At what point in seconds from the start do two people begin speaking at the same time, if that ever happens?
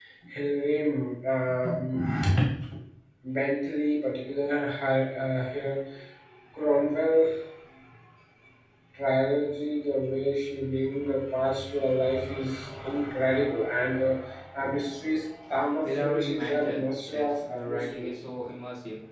15.8 s

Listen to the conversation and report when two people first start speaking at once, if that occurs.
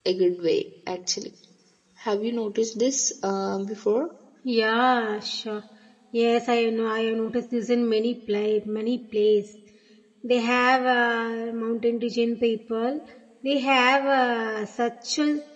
none

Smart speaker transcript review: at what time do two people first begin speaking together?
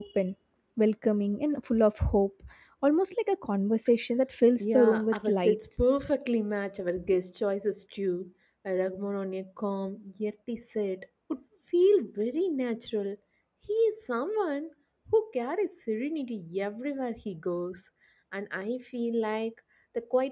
4.6 s

